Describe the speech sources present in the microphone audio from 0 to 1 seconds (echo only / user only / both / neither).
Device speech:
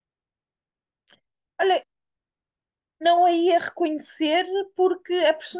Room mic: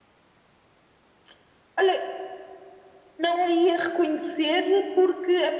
neither